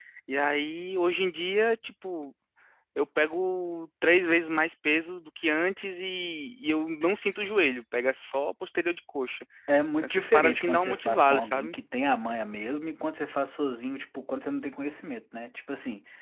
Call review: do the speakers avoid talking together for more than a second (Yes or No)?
No